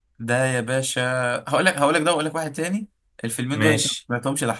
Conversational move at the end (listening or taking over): listening